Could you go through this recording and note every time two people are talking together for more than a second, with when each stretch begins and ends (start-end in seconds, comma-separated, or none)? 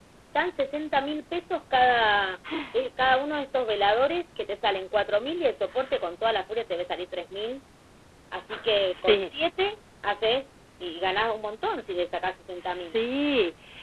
none